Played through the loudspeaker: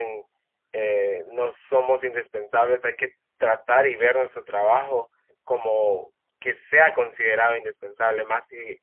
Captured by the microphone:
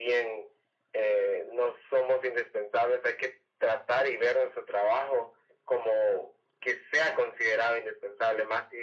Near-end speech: none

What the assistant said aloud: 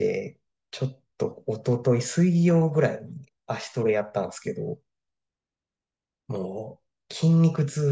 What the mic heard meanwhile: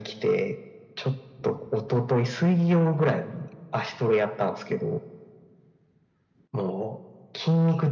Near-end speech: none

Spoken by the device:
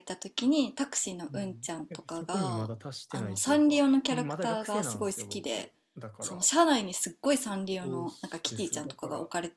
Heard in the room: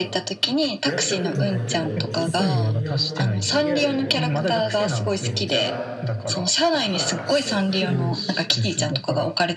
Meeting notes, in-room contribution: present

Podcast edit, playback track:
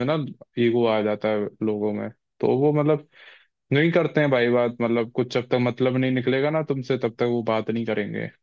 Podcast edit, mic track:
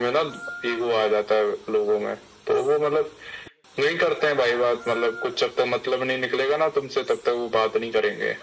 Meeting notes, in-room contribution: none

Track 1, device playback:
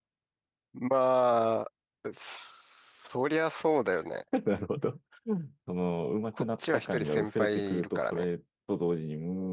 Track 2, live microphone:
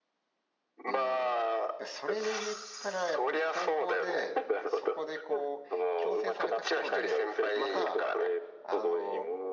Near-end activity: present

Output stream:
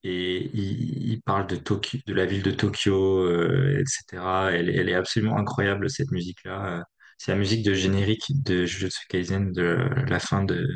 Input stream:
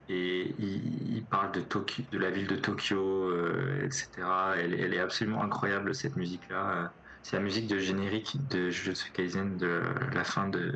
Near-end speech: none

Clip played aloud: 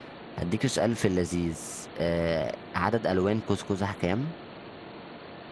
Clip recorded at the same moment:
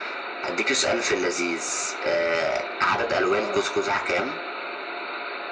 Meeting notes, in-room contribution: present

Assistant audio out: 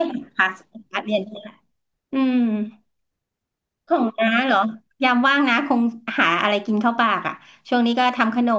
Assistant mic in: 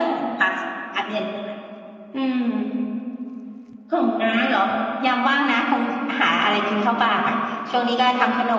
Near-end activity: none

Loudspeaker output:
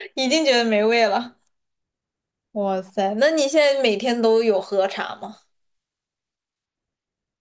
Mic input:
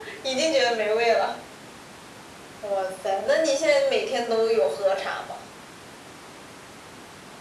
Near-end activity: none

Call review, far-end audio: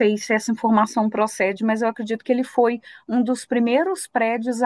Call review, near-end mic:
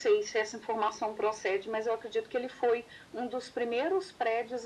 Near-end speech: none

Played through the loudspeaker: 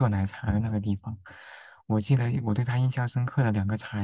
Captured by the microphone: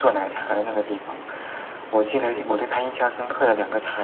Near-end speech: none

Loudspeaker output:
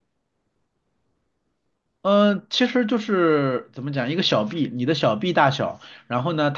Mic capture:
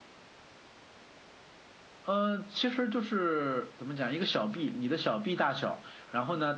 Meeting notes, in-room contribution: none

